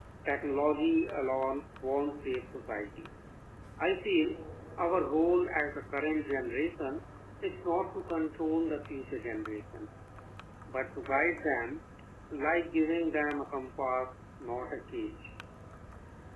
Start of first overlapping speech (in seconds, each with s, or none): none